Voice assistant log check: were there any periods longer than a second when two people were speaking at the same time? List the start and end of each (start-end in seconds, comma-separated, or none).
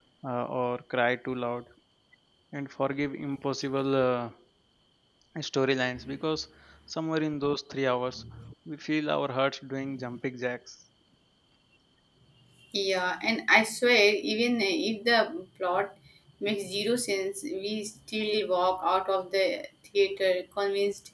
none